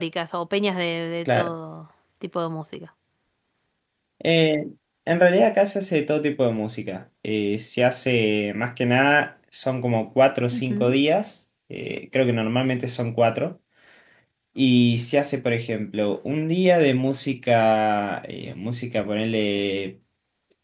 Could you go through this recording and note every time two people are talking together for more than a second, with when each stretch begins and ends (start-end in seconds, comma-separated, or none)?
none